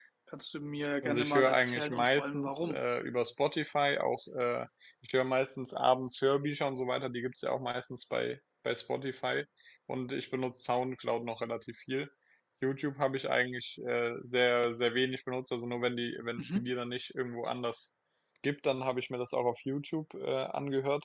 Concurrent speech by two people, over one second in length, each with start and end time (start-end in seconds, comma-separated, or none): 1.0-2.8